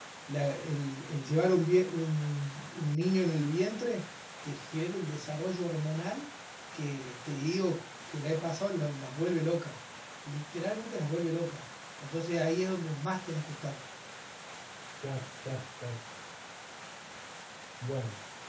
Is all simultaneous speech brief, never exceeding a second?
Yes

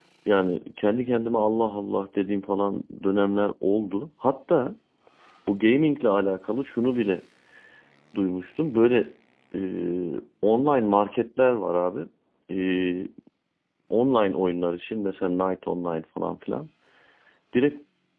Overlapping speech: No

